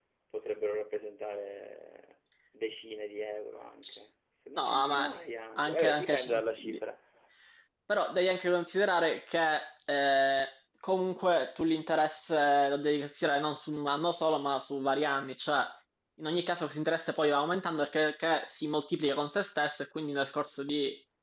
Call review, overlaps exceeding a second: present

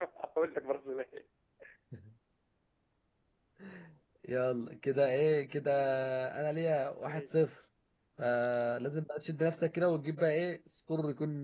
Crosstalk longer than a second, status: none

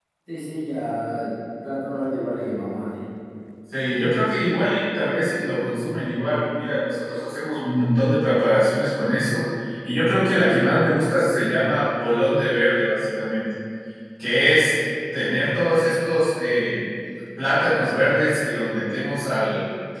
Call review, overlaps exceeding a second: none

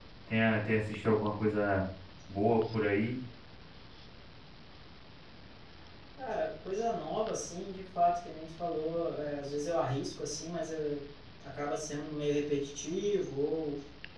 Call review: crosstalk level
none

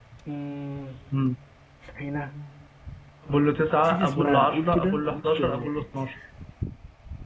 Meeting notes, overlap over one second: present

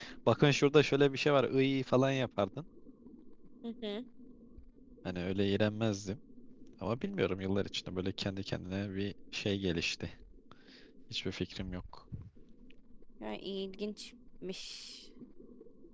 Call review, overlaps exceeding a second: none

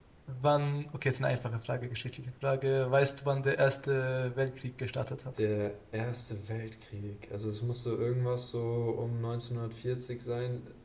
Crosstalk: none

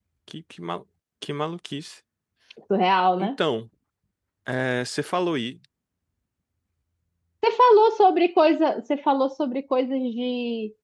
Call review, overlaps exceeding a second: none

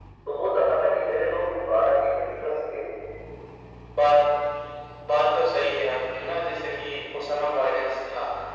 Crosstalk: none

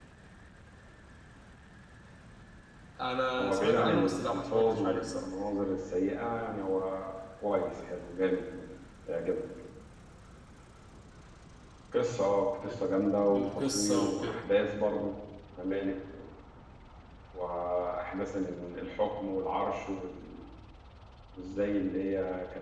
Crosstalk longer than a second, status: present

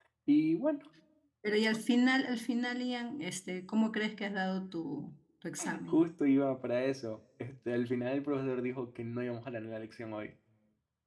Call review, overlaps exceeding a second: none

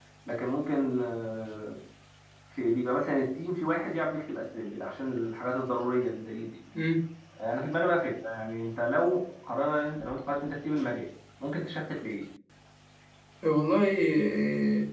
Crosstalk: none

